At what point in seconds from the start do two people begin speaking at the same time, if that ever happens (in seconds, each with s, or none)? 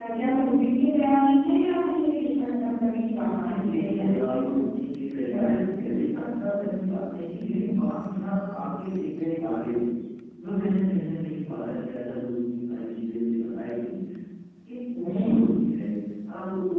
3.3 s